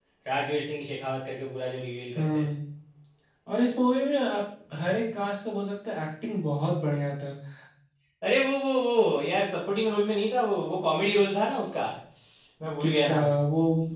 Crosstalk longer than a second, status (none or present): none